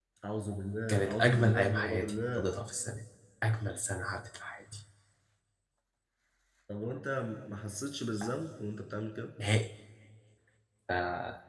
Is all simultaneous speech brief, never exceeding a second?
No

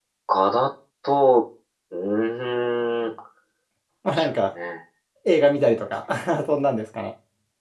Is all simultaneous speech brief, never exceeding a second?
Yes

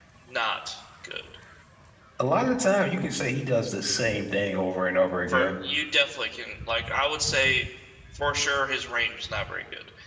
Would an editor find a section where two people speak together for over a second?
No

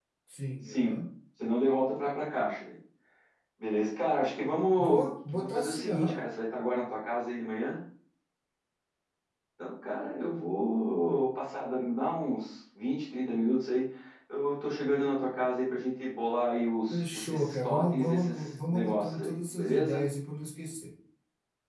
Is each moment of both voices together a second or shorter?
No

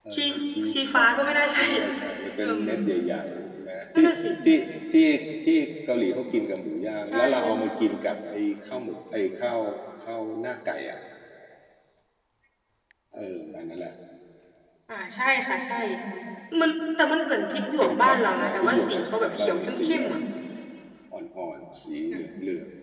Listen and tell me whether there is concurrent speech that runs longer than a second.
Yes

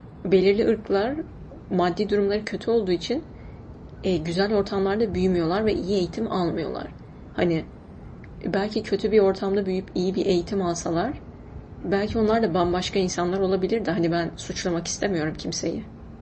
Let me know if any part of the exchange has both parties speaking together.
No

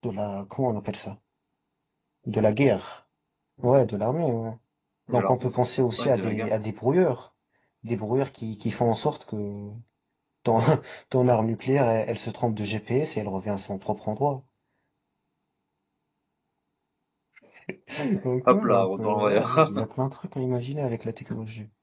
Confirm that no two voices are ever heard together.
No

